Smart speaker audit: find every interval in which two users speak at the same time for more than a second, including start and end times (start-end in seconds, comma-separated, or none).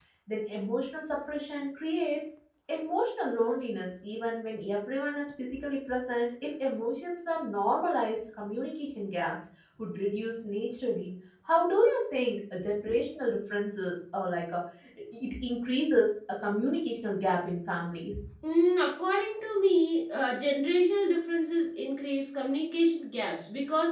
none